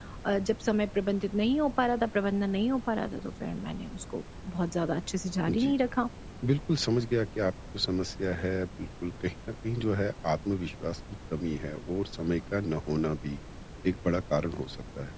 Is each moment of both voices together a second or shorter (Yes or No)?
Yes